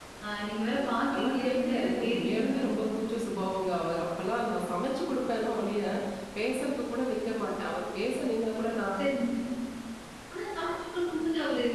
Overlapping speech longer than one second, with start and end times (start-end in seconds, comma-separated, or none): 0.9-2.6